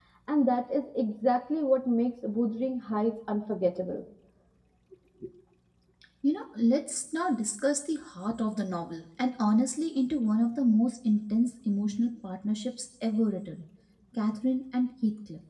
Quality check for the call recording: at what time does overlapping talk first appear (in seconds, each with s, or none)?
none